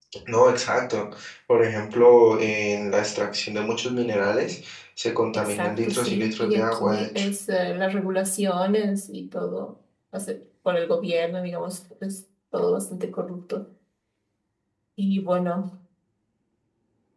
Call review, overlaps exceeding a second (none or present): present